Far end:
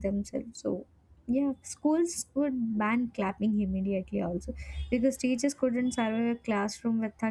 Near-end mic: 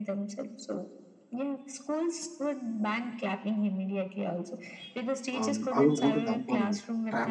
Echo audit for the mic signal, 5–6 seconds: both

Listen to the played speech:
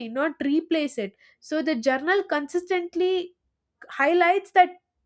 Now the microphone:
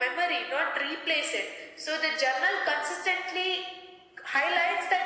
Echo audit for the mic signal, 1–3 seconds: echo only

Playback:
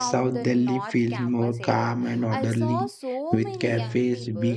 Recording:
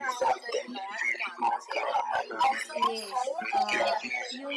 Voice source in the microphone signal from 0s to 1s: echo only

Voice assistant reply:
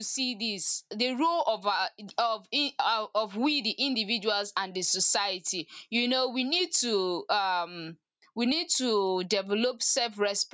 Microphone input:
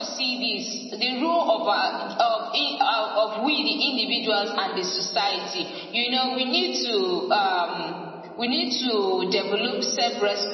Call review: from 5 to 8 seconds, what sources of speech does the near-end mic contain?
echo only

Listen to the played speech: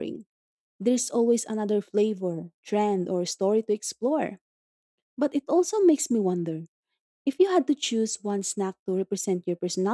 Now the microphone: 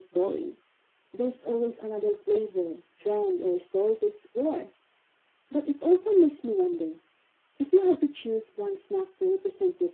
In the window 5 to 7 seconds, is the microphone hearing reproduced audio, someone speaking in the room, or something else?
echo only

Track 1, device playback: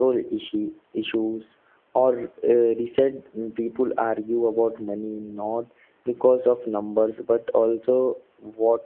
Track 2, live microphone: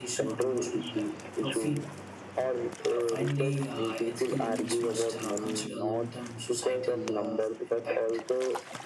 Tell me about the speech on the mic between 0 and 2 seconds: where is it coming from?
both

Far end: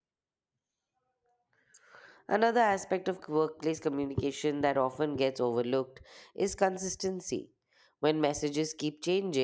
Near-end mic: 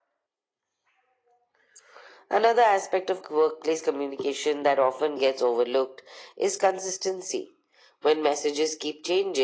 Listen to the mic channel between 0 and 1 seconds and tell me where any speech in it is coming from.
neither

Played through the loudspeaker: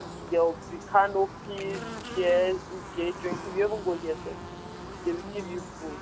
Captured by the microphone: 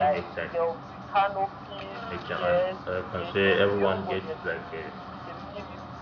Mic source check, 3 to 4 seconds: both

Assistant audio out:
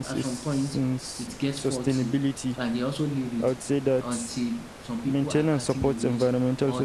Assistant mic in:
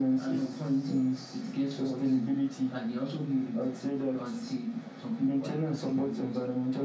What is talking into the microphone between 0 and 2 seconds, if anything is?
echo only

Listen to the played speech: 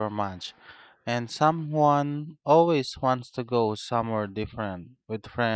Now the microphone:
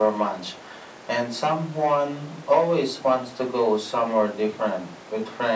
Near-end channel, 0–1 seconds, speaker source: echo only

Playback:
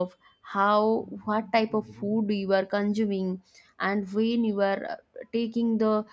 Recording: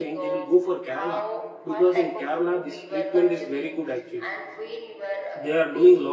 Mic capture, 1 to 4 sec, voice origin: both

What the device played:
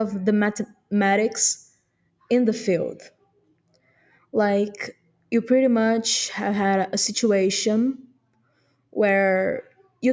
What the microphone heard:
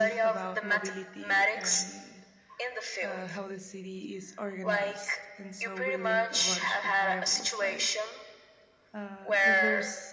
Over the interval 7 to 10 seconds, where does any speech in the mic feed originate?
both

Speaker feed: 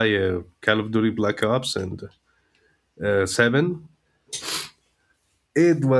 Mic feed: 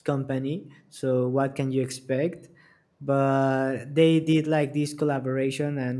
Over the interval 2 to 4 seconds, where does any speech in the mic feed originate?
user only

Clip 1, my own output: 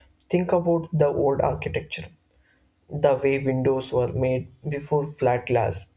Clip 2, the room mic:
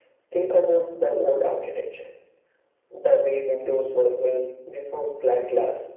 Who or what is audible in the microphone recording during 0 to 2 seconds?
echo only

